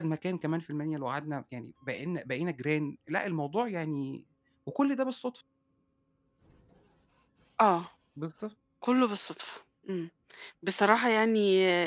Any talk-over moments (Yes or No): No